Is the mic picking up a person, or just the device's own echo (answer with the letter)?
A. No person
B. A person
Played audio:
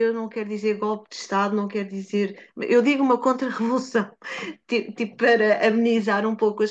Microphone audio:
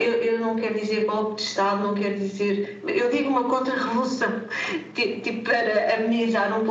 A